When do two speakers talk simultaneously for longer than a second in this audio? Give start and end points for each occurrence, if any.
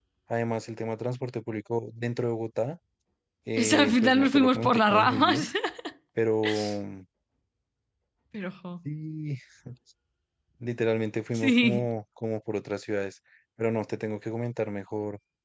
3.6-5.5

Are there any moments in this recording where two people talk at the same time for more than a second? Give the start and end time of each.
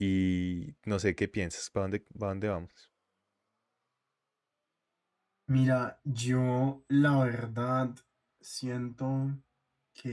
none

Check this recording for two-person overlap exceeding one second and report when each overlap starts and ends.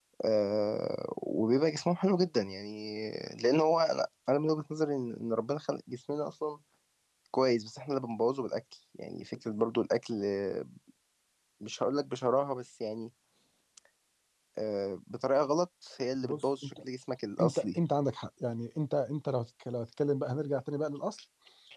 none

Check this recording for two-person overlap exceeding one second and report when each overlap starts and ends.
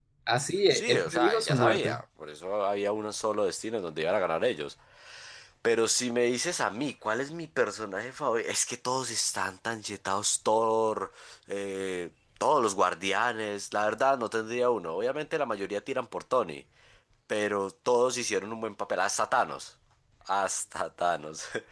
0.7-2.0

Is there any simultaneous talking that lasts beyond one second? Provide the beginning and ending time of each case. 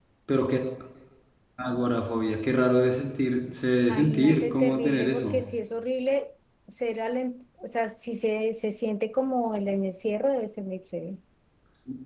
3.9-5.4

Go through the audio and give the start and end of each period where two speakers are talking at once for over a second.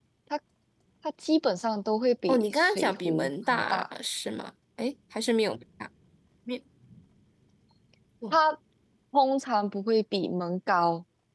2.3-3.8

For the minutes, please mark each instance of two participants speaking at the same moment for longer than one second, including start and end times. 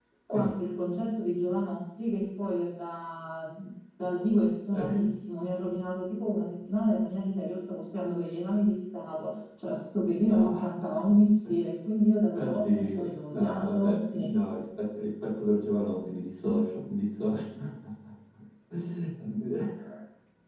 12.3-14.3

